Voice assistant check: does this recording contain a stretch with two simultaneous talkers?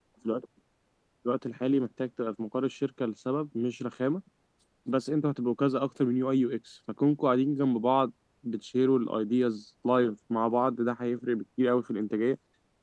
No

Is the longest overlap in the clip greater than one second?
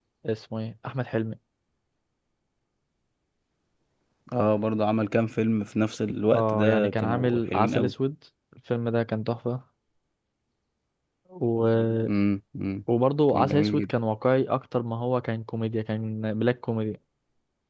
Yes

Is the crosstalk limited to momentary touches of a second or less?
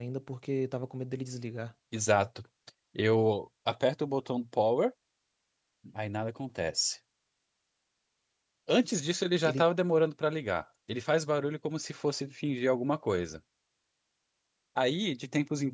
Yes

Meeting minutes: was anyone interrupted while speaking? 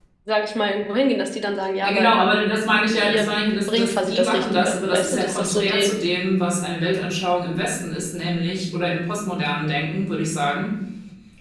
Yes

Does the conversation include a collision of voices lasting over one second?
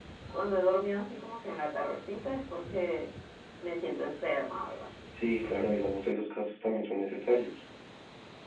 No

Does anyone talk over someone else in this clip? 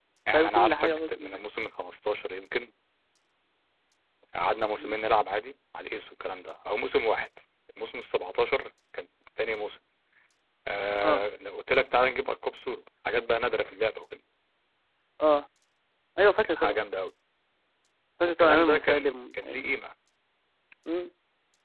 Yes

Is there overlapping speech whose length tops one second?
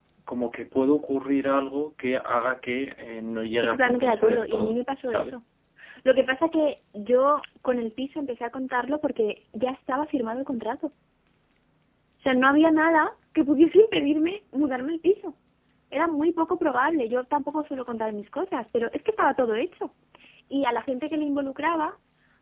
Yes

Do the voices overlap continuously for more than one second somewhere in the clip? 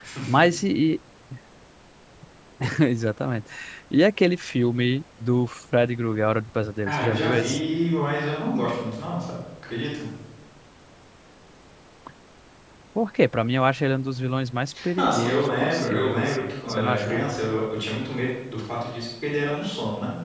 Yes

